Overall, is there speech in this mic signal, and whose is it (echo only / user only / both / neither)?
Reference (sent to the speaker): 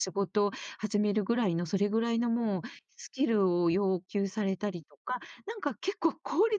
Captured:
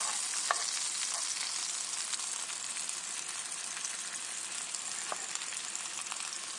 neither